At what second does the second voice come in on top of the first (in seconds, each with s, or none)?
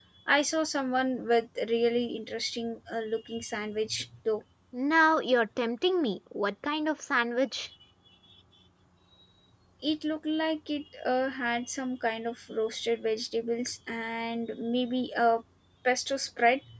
none